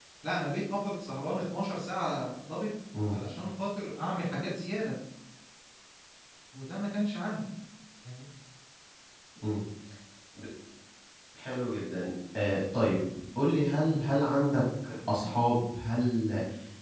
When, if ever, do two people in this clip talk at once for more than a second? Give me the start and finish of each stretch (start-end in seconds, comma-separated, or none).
none